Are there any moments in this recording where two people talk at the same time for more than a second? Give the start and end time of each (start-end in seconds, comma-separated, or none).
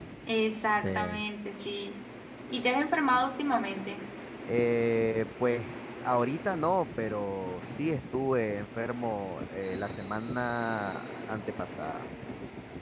none